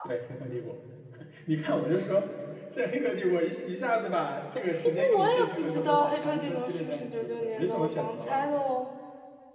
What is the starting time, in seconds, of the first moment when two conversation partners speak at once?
4.8 s

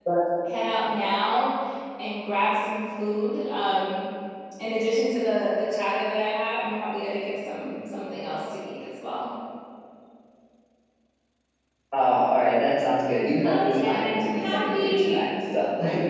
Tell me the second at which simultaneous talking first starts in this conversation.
13.4 s

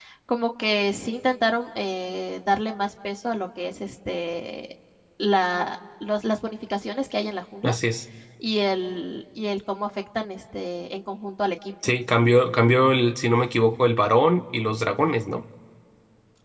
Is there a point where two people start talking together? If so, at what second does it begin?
none

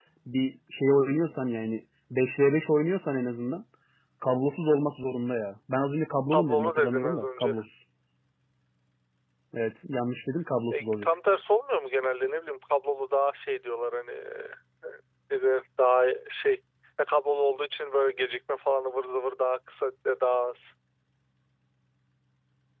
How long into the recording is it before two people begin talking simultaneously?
6.3 s

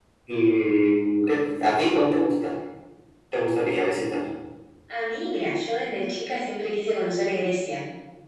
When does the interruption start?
none

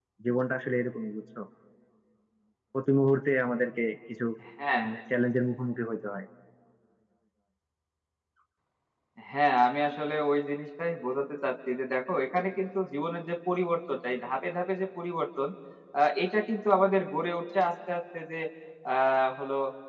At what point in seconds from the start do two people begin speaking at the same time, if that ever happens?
none

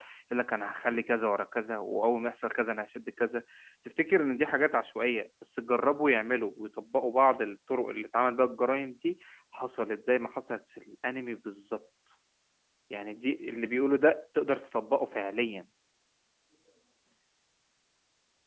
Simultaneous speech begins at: none

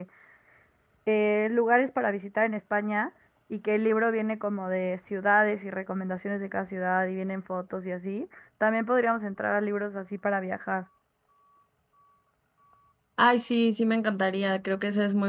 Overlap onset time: none

